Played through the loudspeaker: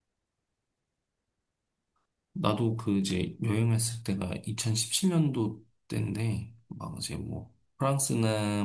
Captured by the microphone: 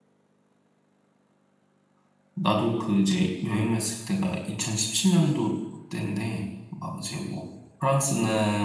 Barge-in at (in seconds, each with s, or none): none